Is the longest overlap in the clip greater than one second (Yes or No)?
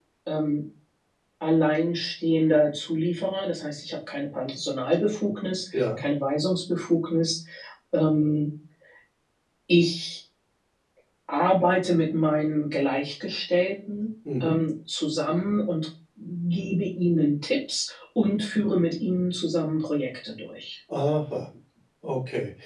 No